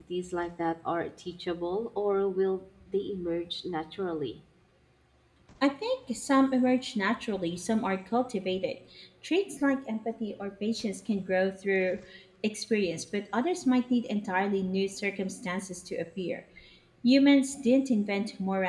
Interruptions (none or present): none